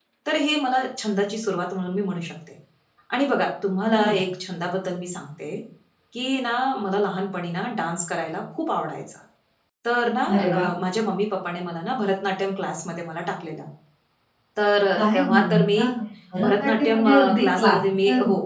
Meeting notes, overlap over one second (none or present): present